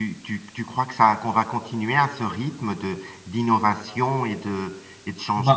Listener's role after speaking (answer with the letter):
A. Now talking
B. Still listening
A